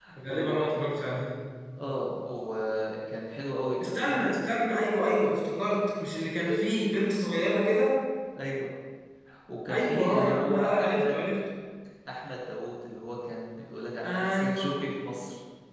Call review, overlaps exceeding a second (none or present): present